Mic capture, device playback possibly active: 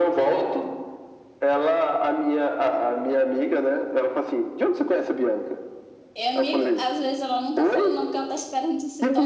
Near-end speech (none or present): present